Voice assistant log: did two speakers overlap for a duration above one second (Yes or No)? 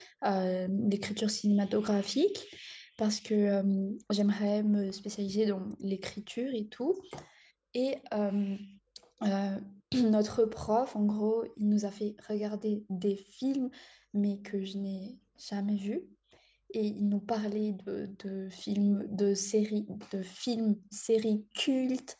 No